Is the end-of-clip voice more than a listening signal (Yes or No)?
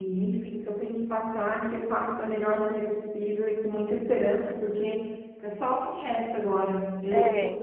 No